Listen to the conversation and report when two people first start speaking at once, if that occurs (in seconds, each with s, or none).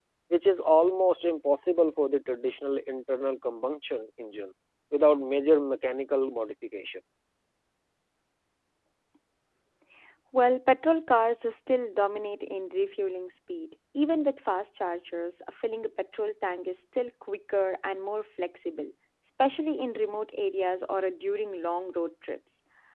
none